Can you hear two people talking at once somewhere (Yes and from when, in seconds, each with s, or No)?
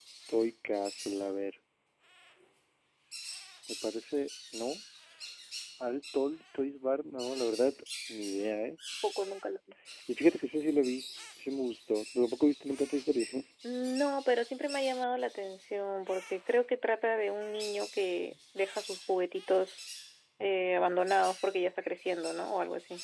No